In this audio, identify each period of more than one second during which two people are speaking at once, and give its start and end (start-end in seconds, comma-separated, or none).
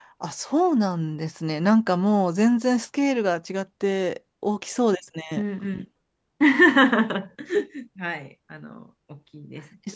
none